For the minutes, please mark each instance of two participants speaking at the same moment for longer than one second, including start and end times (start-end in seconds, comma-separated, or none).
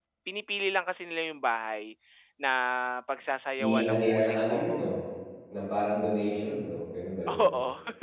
3.6-4.8